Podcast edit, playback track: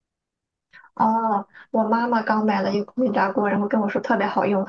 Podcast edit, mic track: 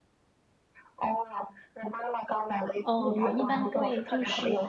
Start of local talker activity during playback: 2.8 s

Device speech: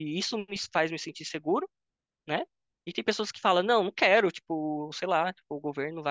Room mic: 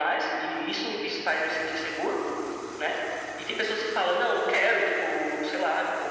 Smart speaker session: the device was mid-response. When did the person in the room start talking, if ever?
none

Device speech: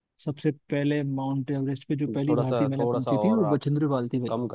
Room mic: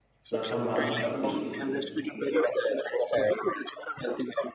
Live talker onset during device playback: 0.3 s

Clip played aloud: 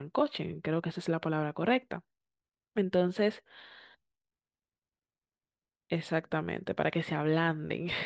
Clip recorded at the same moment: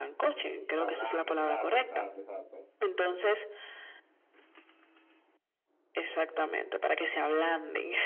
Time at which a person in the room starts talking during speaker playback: 0.8 s

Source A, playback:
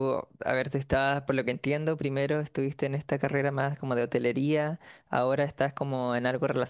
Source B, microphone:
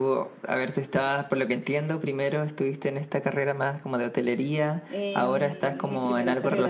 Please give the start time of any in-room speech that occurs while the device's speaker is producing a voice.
4.9 s

